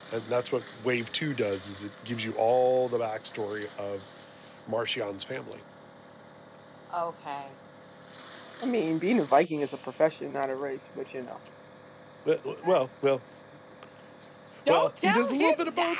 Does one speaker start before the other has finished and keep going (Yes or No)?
Yes